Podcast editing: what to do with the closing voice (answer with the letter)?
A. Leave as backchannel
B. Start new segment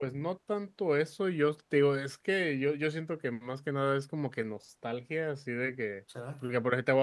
A